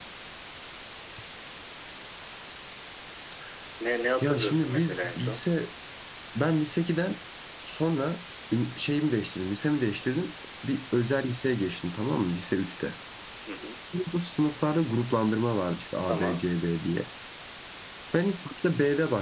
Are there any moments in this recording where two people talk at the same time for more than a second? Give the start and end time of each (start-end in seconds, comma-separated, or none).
4.2-5.5